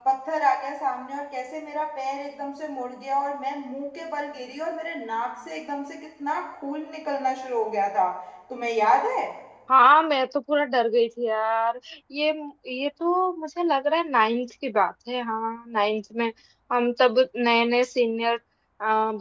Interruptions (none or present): none